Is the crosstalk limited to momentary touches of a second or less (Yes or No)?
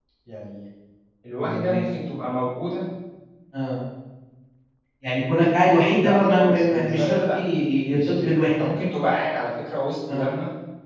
No